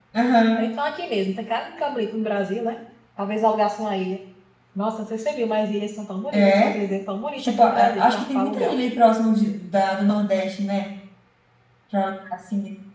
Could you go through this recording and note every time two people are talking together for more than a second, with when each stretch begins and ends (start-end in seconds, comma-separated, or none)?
7.4-8.8